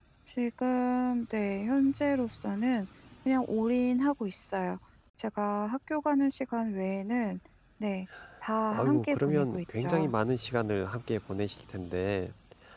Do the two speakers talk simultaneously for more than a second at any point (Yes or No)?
Yes